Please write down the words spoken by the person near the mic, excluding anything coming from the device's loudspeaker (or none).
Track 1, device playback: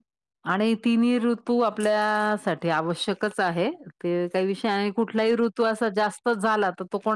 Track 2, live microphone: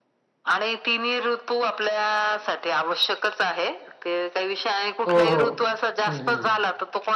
हो हो. हम्म हम्म